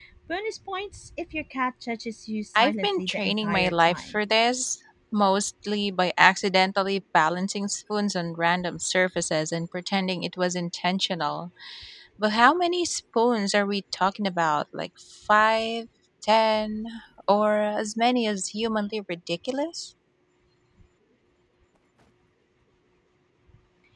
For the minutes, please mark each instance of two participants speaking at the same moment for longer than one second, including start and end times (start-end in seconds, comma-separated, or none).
2.5-4.2